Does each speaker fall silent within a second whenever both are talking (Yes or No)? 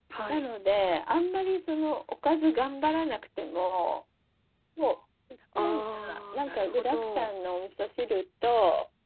No